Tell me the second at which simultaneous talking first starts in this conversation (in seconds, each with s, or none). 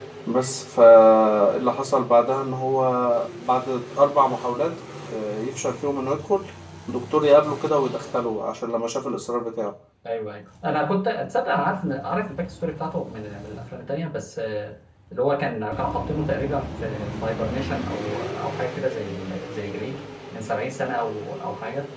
none